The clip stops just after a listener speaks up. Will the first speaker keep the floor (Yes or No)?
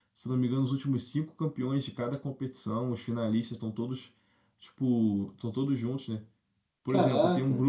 Yes